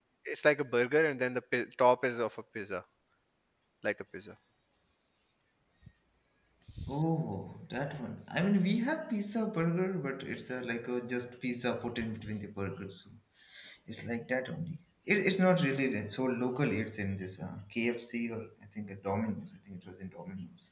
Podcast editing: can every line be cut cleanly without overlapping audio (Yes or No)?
Yes